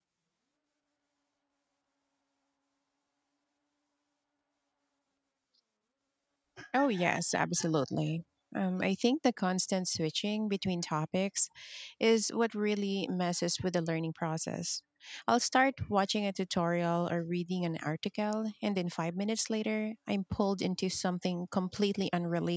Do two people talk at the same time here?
No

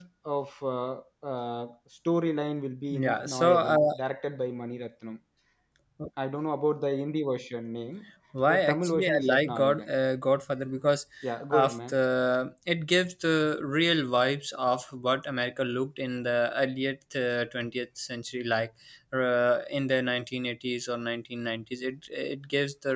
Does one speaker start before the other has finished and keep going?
Yes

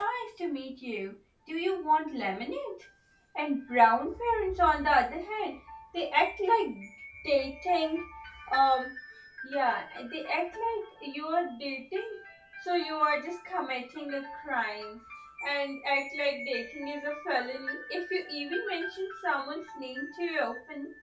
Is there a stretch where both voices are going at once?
No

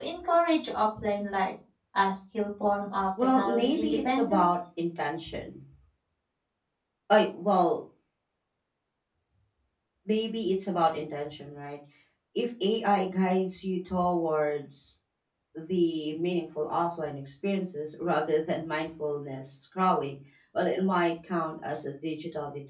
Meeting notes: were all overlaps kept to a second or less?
No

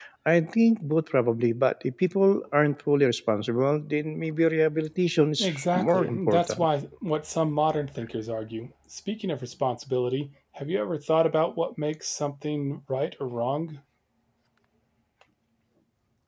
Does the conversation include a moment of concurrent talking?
Yes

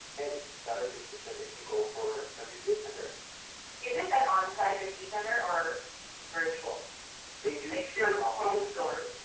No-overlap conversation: No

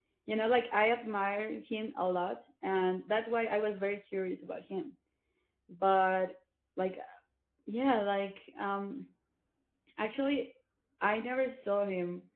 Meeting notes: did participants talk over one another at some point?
No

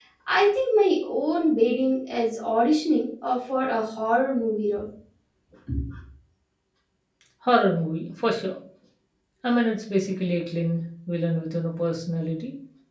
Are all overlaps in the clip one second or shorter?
Yes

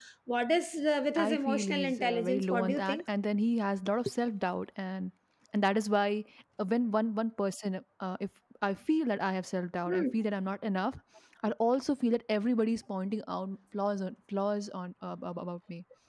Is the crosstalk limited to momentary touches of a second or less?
No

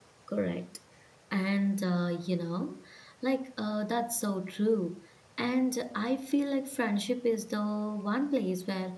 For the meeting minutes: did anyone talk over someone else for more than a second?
No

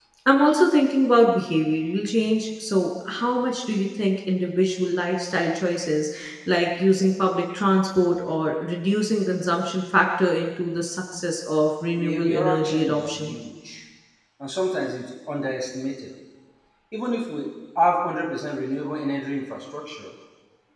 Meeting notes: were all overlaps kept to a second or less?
No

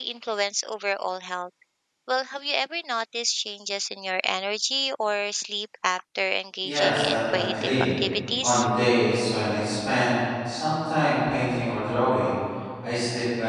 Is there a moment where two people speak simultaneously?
Yes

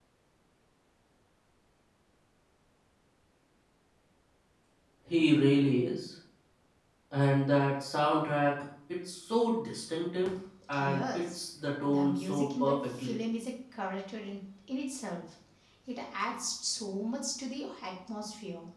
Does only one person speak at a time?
No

